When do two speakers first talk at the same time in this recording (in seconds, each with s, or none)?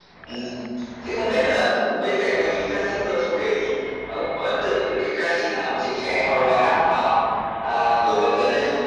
none